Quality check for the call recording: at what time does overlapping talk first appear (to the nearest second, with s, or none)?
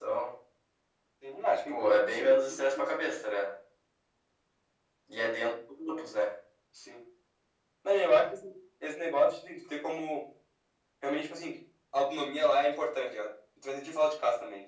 2 s